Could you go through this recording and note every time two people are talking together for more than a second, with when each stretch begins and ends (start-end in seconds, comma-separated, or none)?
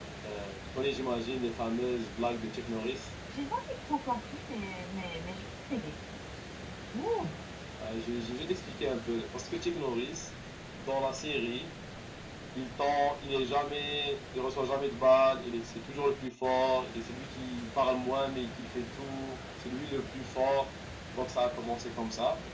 none